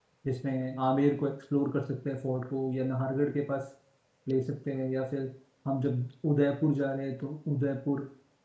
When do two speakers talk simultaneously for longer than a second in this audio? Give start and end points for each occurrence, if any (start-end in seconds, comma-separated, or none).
none